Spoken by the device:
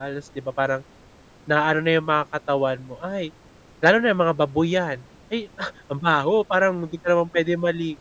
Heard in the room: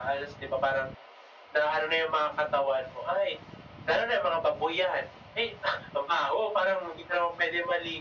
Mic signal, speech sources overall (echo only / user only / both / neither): echo only